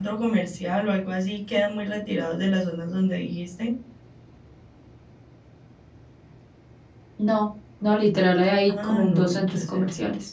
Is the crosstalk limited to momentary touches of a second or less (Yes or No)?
No